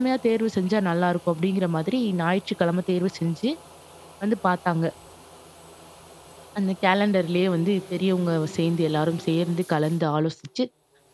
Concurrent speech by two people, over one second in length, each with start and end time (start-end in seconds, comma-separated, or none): none